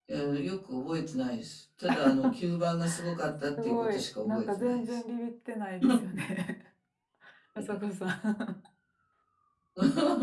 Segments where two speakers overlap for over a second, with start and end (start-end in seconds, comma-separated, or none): 3.6-5.0